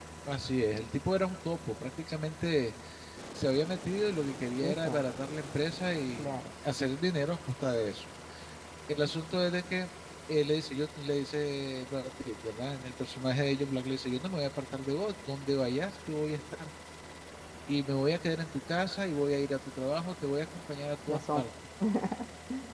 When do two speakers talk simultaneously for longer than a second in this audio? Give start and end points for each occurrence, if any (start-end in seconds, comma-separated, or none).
none